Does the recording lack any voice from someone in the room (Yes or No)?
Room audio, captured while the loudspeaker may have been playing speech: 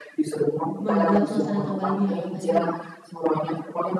No